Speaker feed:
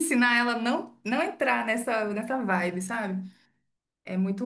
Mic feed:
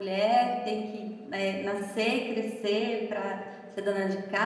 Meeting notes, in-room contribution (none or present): present